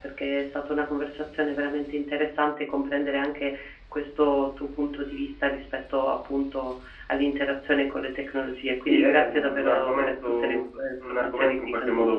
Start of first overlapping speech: 9 s

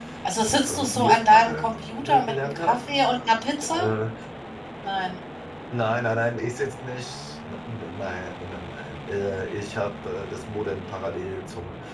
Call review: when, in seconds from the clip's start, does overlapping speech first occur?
1 s

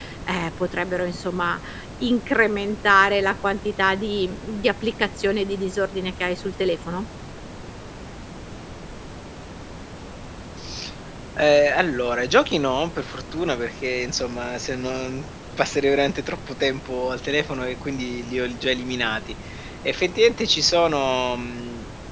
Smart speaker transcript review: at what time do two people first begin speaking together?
none

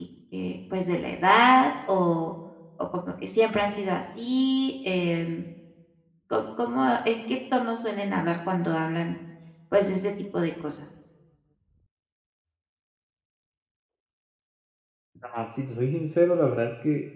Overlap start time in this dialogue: none

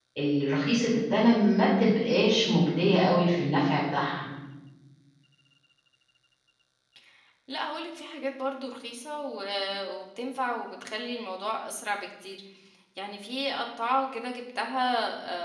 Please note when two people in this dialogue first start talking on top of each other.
none

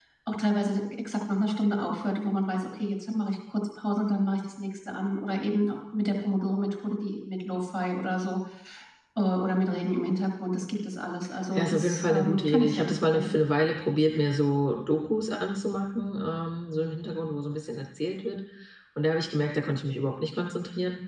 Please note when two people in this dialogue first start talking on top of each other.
12 s

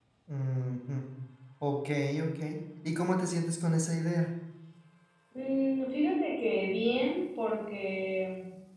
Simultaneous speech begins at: none

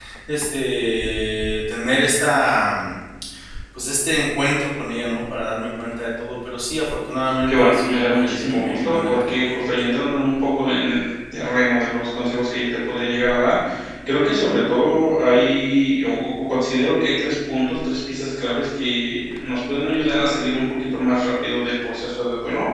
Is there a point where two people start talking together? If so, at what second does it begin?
7 s

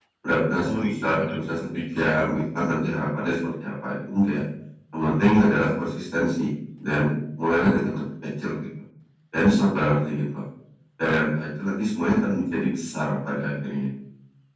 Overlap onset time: 1 s

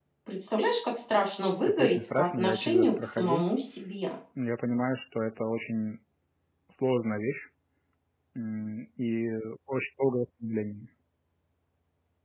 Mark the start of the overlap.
2 s

